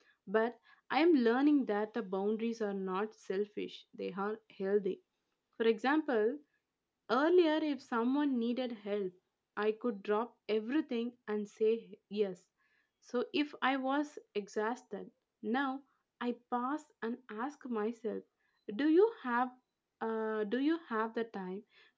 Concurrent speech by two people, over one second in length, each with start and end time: none

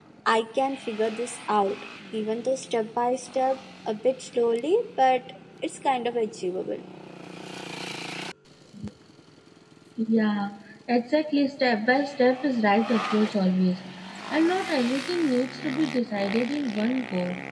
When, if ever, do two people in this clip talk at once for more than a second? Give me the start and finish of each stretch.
none

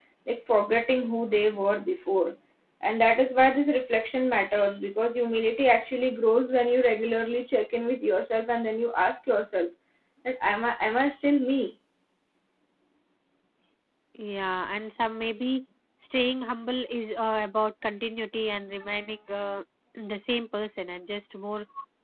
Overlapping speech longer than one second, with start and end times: none

